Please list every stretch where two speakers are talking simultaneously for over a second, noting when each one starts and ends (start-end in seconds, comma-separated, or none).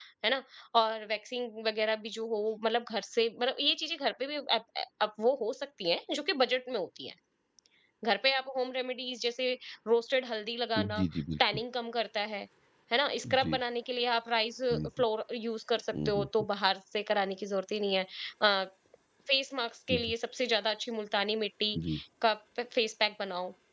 none